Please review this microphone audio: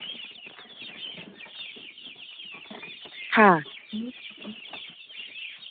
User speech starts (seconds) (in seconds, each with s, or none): 3.4 s